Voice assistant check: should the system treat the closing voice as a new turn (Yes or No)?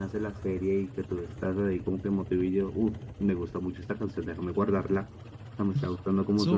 Yes